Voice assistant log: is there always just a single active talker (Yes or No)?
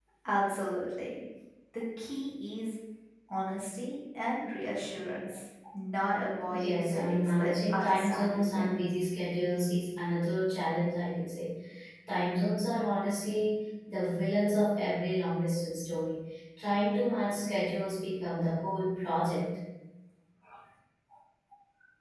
No